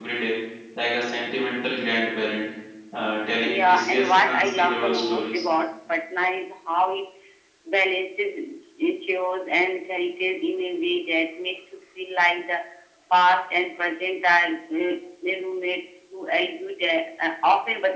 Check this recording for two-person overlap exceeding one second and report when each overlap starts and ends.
3.4-5.4

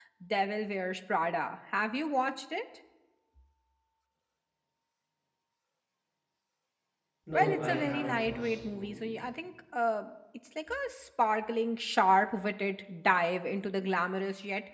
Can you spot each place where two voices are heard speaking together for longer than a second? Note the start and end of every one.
7.3-9.1

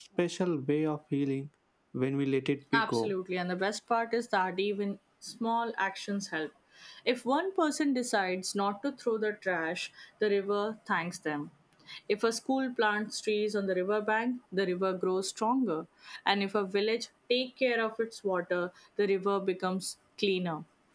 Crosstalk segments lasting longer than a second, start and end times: none

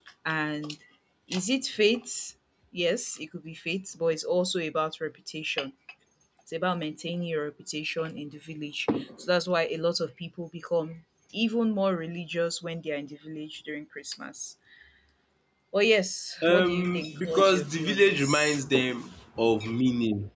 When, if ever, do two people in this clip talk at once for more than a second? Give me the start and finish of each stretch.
16.4-18.6

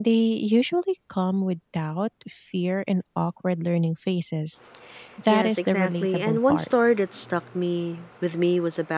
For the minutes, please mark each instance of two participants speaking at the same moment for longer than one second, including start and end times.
5.3-6.7

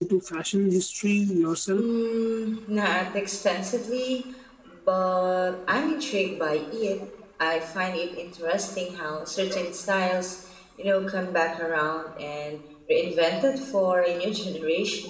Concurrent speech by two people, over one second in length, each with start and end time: none

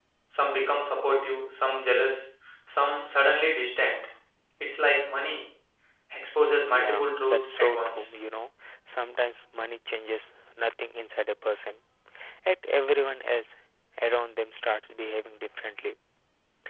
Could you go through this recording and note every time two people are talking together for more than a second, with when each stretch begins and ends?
6.8-8.0

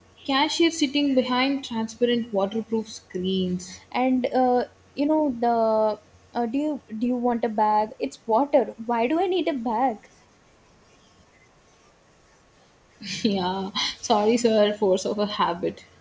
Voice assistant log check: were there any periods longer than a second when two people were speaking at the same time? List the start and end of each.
none

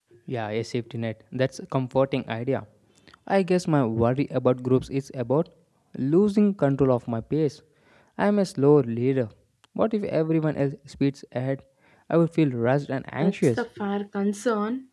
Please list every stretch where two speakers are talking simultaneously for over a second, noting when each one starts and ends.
none

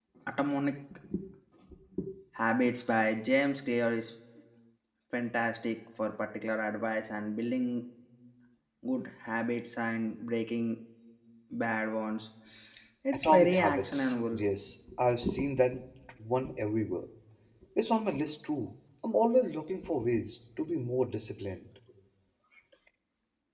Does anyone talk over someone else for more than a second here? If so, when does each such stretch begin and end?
13.1-14.4

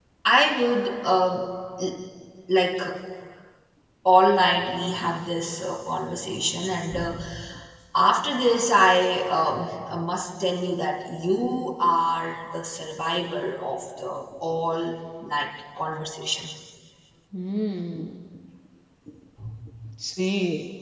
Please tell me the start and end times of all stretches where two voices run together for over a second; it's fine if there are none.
none

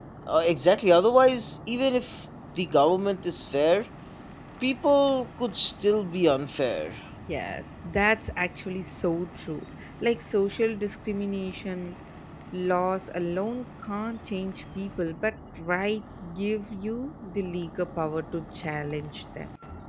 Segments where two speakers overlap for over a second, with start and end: none

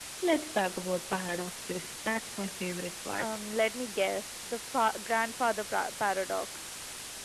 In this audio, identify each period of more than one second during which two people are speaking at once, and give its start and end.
none

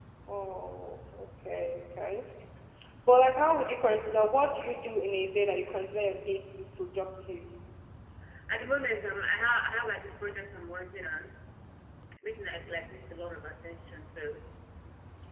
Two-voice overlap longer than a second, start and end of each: none

